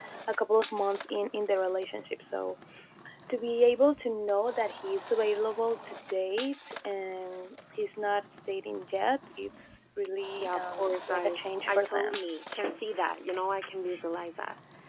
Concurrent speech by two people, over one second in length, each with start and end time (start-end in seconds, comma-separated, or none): 10.4-12.2